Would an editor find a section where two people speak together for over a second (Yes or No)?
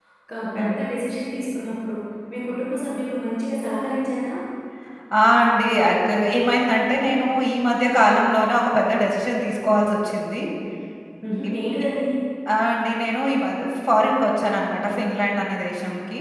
No